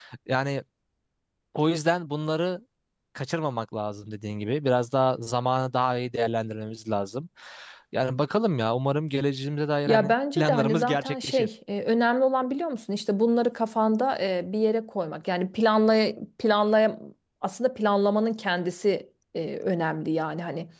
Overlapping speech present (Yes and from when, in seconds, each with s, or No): Yes, from 9.9 s